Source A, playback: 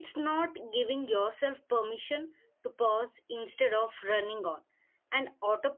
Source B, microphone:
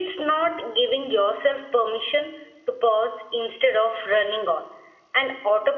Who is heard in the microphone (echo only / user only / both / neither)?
echo only